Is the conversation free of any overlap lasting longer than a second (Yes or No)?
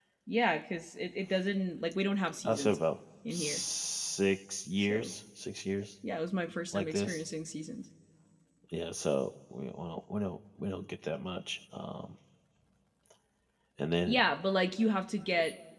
Yes